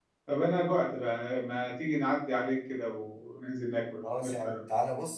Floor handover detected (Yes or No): Yes